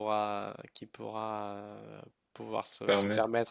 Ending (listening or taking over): listening